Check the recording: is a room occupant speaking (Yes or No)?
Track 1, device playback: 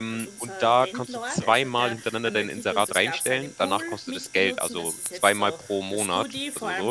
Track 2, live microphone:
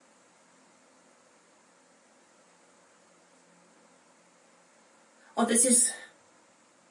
Yes